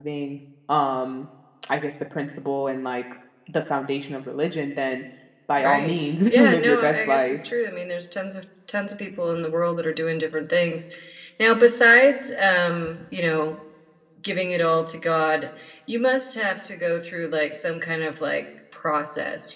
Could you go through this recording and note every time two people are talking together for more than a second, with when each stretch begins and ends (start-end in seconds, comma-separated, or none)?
5.6-7.4